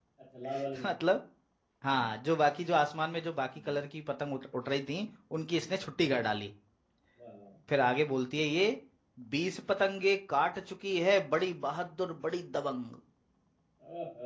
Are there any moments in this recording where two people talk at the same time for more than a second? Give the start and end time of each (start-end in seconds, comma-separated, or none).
none